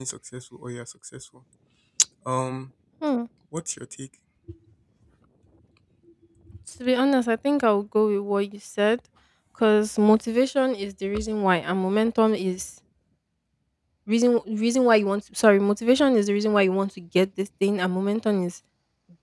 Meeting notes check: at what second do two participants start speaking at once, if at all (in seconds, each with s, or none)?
none